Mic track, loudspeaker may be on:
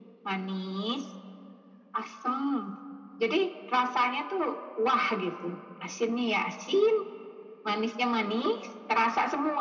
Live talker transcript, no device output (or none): none